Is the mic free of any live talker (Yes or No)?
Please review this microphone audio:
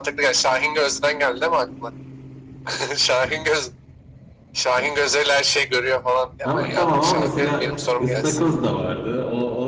No